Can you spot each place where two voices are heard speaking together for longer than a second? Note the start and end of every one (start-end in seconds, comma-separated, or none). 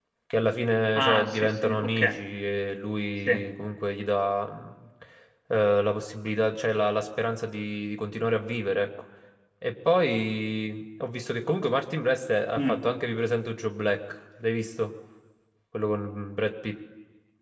1.0-2.2